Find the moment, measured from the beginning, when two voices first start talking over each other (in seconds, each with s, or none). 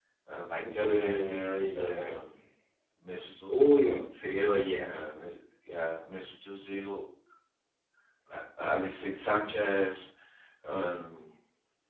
0.6 s